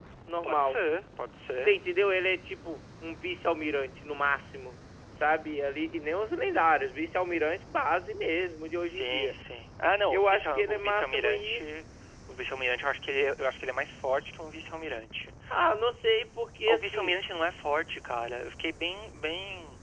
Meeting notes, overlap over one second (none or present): present